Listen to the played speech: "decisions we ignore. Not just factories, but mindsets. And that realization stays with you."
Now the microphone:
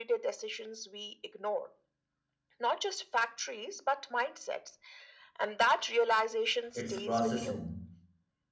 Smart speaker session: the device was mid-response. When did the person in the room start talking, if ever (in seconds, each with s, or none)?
6.8 s